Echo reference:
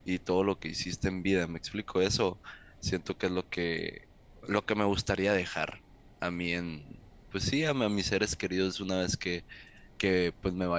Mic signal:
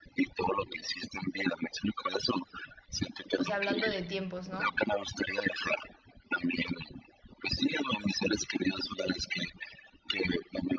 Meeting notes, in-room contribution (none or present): present